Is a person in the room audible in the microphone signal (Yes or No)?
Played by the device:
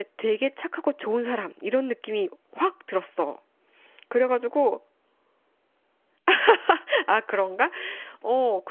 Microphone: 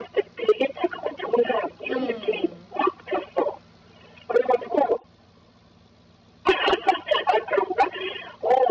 Yes